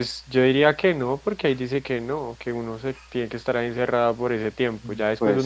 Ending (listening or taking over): listening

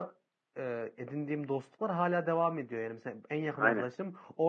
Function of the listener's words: listening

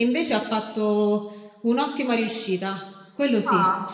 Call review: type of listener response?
taking over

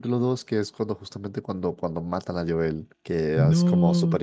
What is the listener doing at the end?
listening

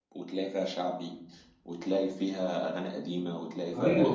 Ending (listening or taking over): taking over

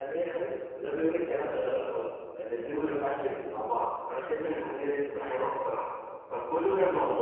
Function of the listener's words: listening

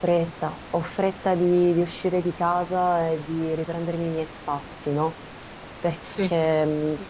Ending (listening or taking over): listening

